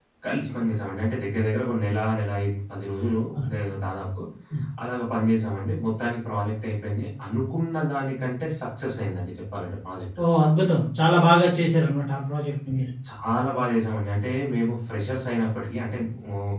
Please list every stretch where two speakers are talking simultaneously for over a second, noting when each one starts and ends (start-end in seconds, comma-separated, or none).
none